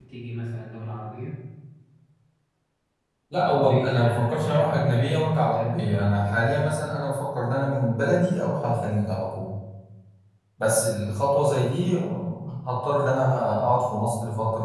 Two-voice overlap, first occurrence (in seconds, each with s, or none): 3.5 s